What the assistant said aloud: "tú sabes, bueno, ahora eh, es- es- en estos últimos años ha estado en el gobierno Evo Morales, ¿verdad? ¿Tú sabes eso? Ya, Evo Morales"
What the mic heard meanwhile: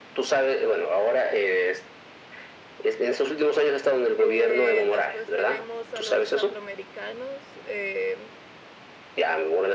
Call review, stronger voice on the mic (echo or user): echo